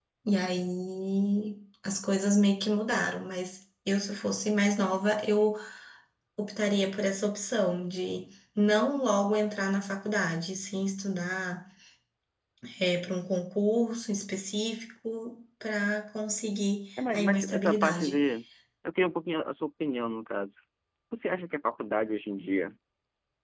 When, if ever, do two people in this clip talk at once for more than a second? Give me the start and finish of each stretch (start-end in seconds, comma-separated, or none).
17.0-18.2